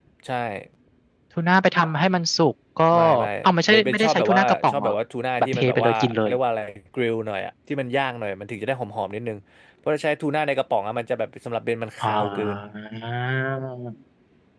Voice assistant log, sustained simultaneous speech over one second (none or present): present